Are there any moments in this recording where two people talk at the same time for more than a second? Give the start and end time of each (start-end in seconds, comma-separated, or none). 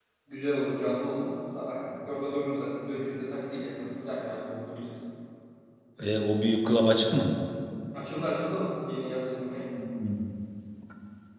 none